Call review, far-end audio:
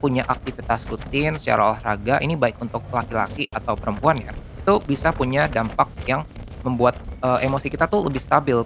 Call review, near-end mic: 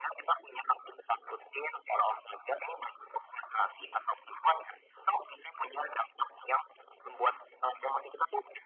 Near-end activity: none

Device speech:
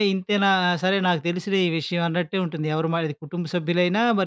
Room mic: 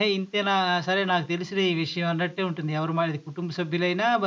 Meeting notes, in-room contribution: none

